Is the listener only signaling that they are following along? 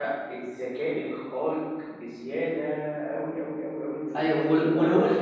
No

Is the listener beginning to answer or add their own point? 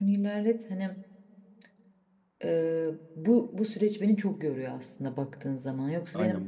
Yes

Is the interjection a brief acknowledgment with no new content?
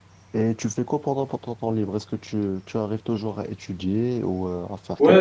No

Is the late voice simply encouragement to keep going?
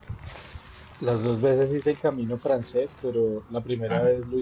Yes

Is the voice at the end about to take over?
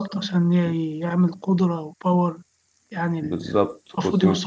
Yes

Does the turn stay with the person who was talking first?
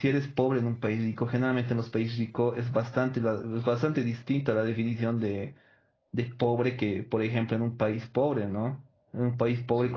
Yes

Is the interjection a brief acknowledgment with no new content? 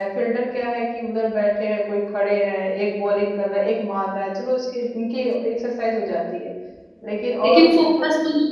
No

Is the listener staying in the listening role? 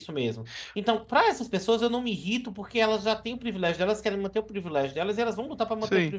No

